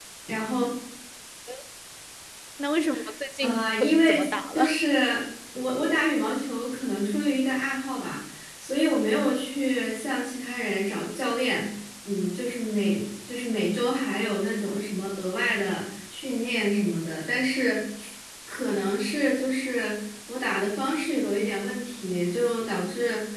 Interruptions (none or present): present